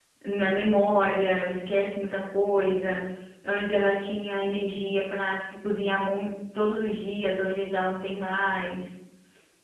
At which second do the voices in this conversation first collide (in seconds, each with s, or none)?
none